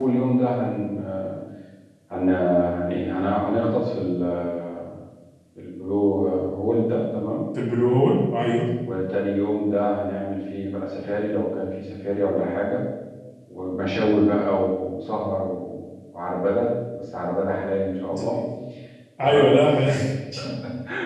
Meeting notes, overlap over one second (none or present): none